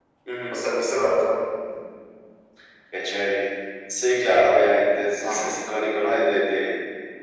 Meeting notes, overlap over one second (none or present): none